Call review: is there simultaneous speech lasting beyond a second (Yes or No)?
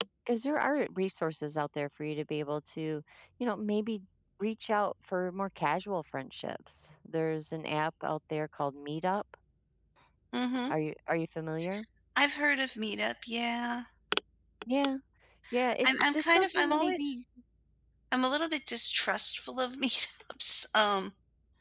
Yes